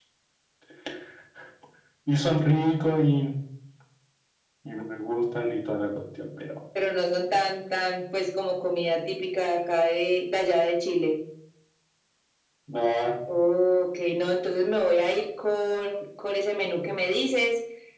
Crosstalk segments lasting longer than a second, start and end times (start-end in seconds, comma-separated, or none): none